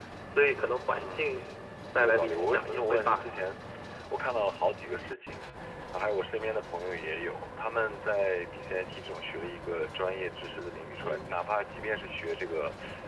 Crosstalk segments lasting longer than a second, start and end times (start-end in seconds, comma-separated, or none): 2.0-3.2